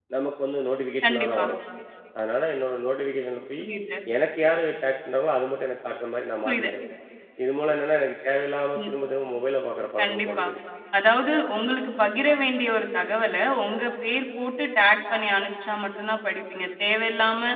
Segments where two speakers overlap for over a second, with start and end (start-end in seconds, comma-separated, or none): none